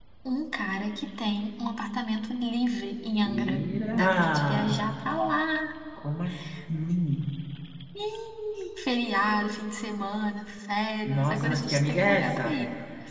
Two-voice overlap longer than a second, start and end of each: 3.2-4.8, 11.1-12.6

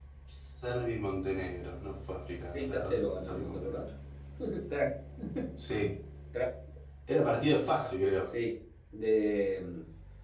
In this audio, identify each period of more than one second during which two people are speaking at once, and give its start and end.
2.5-3.8

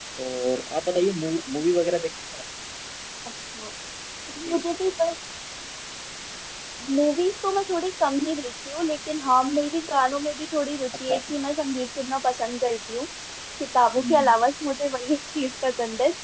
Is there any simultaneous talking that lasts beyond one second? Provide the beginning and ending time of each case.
none

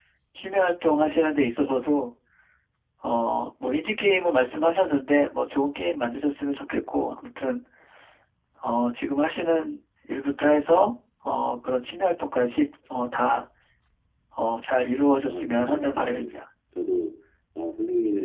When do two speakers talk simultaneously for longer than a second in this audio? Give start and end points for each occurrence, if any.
15.2-16.4

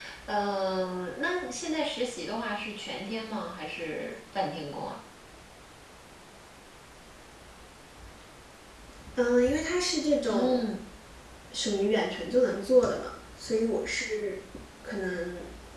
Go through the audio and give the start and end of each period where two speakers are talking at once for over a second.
none

